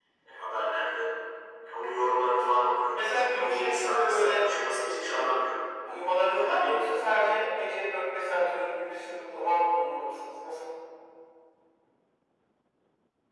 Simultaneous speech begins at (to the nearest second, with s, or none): 3 s